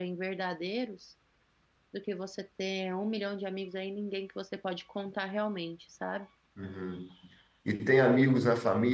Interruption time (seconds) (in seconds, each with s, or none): none